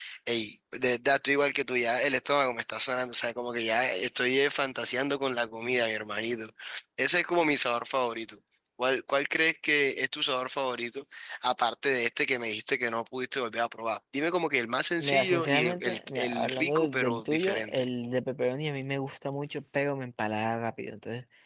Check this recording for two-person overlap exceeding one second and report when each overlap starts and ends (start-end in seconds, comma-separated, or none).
15.0-17.9